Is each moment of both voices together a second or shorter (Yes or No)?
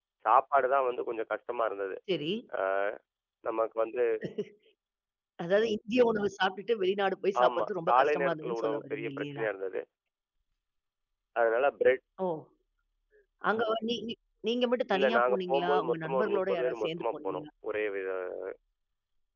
No